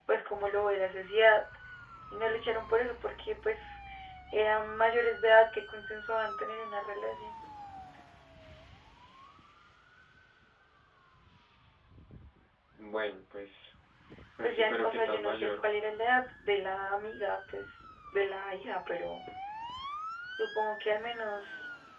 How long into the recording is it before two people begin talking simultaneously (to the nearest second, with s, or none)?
14 s